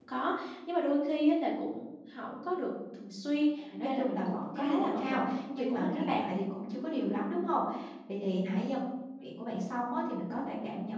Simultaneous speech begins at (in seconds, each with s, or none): 3.7 s